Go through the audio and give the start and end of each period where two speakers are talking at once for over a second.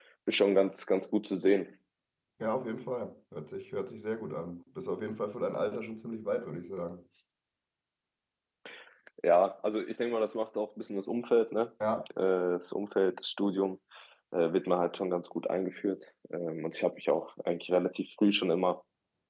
none

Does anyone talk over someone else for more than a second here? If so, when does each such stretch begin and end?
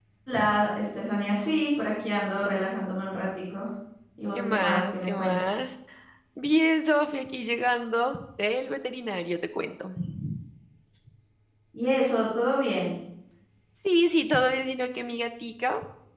4.3-5.7

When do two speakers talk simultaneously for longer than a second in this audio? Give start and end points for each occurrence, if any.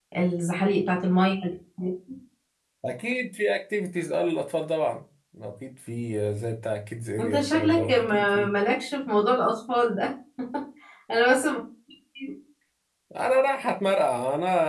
7.2-8.5

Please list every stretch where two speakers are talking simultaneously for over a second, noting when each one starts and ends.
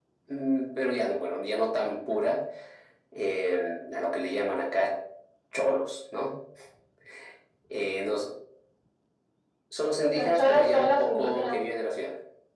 10.1-11.6

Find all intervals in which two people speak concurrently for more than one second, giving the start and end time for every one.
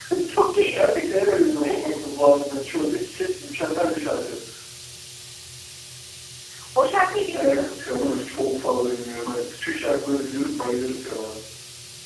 none

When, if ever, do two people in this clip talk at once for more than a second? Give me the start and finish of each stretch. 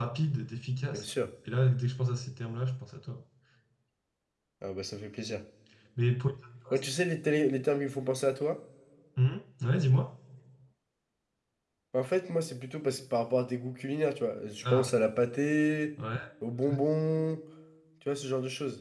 none

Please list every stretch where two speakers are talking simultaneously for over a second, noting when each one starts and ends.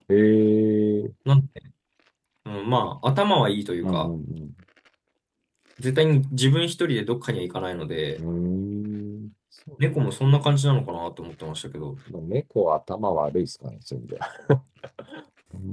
none

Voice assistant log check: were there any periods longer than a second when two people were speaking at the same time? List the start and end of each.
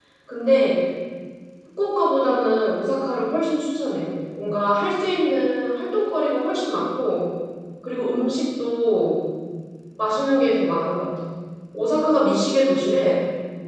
none

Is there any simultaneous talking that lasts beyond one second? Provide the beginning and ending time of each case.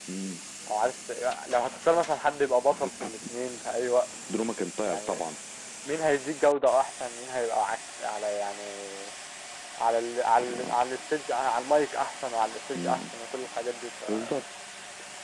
none

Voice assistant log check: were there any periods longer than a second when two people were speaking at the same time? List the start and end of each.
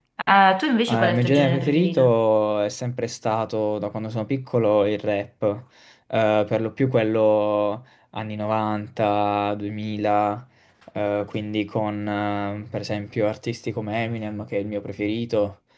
0.9-2.1

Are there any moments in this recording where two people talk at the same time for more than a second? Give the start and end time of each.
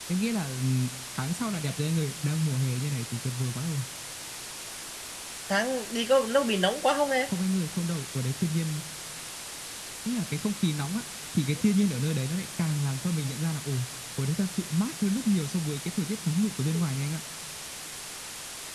none

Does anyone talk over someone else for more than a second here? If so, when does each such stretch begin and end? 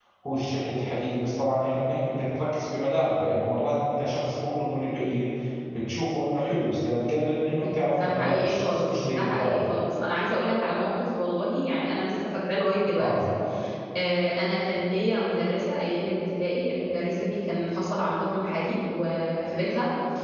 7.9-9.7

